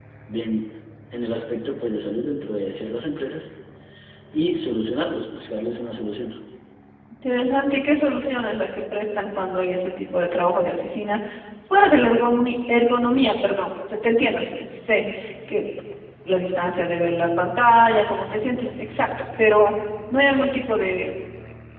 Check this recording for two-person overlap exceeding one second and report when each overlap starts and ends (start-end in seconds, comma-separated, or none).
none